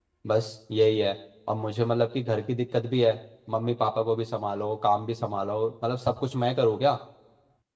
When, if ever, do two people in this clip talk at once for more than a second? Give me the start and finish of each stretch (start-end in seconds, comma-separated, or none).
none